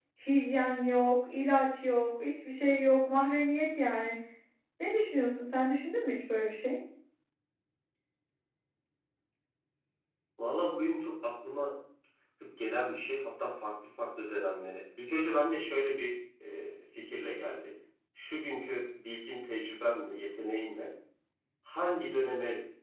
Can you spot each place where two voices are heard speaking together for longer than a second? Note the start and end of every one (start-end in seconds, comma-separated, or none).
none